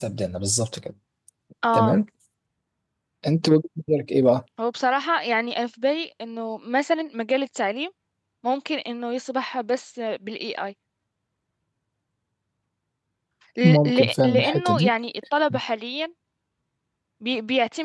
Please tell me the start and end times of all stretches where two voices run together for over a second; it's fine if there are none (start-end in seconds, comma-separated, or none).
13.6-14.9